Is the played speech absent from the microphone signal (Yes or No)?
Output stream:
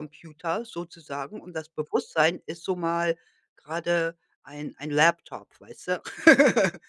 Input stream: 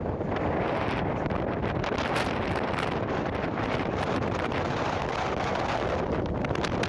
Yes